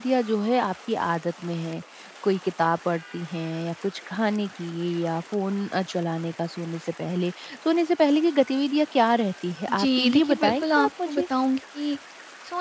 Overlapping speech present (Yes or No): Yes